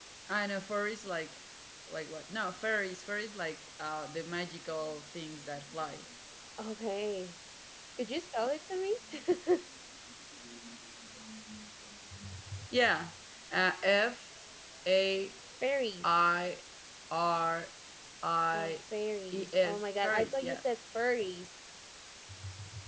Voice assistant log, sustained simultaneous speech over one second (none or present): present